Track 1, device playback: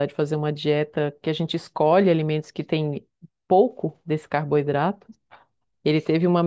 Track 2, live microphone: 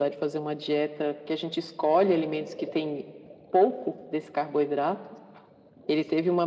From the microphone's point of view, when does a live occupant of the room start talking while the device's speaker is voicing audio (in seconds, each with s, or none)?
none